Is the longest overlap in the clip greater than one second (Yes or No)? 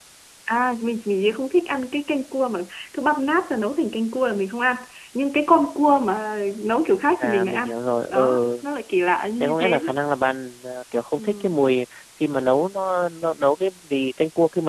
No